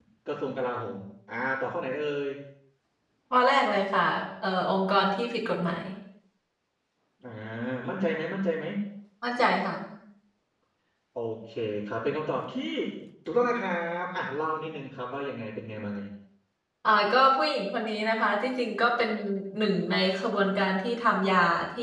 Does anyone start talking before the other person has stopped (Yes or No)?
No